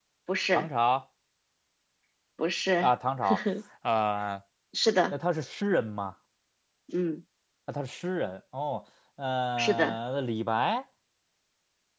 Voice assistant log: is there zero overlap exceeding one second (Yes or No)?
Yes